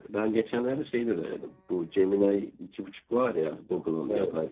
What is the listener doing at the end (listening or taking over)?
listening